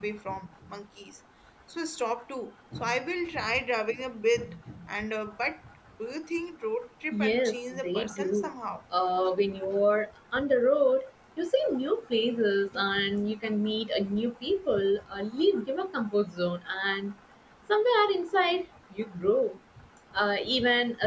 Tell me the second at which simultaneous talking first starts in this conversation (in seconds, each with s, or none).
7.1 s